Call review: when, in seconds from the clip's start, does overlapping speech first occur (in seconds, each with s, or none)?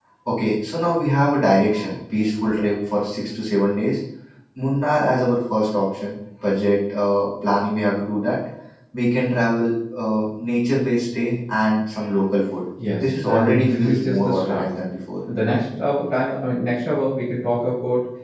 13.0 s